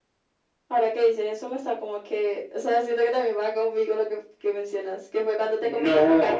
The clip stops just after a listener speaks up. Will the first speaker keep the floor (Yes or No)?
No